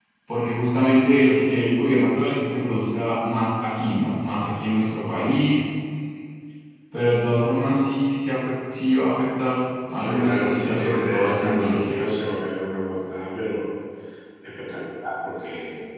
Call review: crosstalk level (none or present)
present